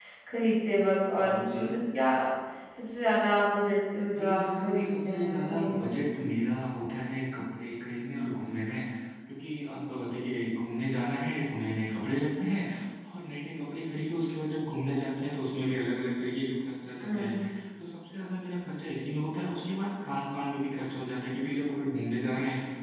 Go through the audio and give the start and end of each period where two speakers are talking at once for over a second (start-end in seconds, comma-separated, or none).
4.1-6.0